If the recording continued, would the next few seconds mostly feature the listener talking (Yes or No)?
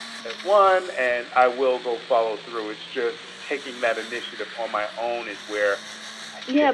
Yes